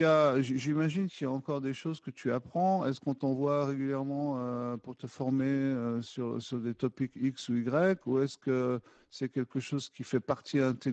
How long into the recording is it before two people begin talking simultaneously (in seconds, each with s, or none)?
none